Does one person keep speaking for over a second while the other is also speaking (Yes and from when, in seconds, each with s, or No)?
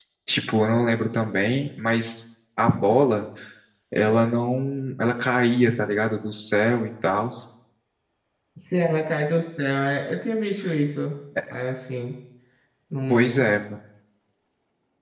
No